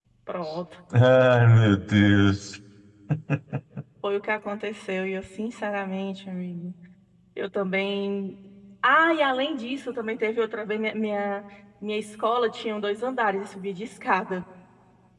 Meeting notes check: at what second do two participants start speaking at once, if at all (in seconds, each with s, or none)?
none